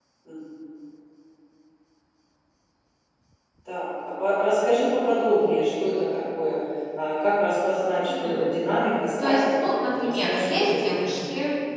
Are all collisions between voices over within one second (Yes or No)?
No